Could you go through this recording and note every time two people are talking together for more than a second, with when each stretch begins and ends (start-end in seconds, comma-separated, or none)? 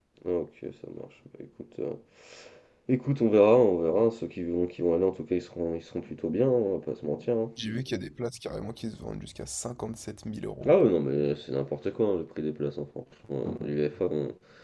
none